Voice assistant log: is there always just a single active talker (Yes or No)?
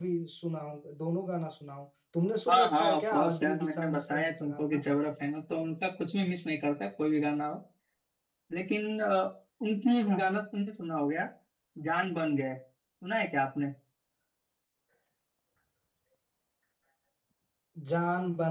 No